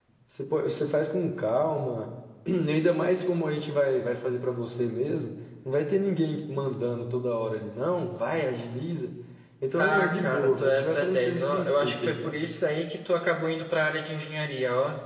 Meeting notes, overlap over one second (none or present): present